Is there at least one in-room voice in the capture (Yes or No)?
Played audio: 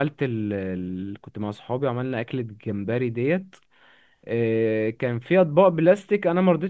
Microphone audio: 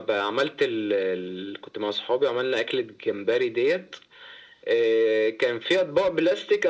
No